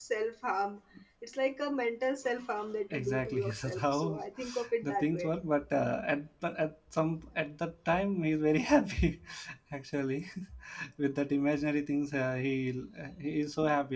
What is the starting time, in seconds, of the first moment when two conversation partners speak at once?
2.9 s

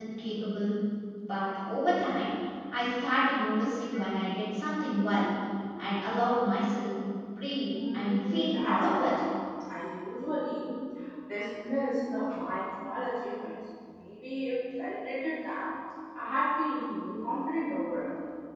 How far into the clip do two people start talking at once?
7.7 s

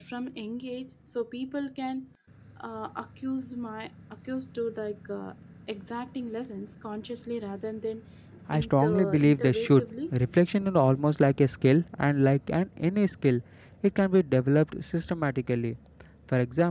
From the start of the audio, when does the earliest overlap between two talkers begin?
8.5 s

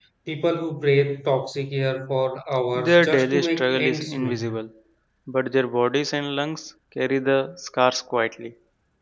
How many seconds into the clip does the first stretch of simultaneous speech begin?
2.8 s

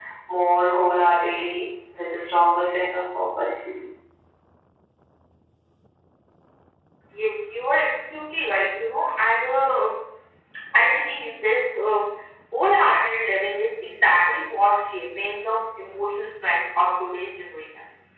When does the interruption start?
none

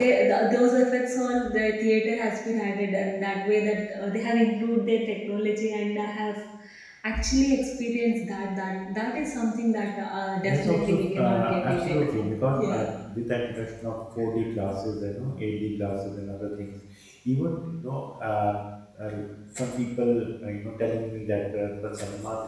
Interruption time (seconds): 10.4 s

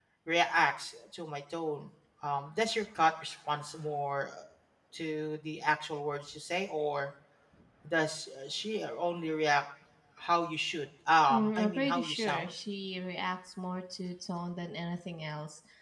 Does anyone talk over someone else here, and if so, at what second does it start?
11.3 s

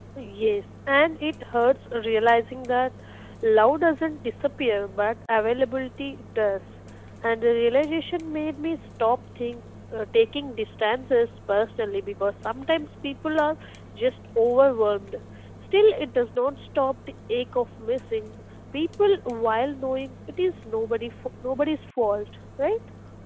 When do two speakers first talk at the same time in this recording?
none

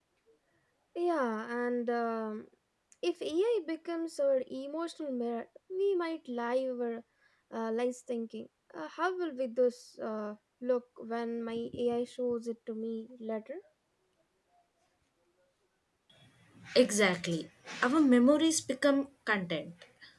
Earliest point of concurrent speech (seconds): none

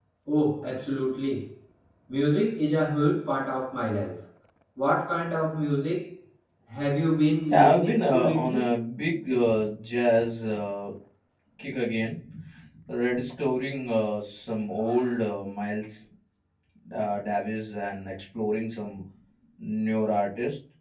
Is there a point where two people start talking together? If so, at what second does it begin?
7.5 s

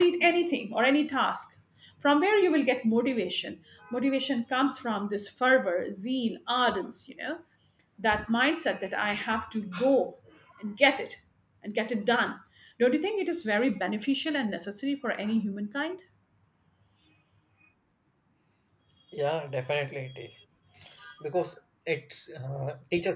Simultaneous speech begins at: none

